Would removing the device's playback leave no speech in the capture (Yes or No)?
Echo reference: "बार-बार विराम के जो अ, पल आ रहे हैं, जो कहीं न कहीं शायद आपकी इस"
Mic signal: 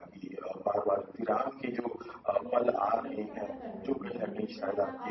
No